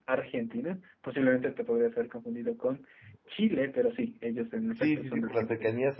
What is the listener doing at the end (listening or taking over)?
taking over